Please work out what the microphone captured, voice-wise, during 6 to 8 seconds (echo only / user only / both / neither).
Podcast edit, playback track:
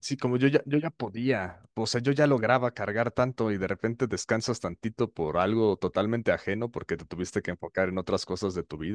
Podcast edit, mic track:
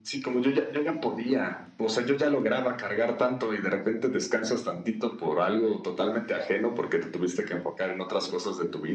echo only